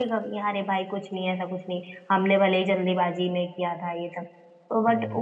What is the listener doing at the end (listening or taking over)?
listening